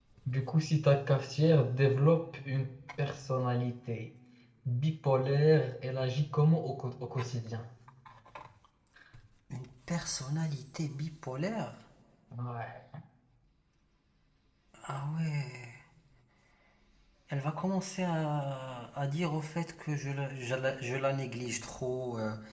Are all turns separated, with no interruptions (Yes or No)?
Yes